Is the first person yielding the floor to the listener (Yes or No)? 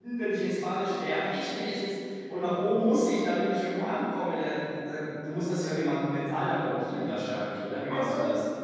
Yes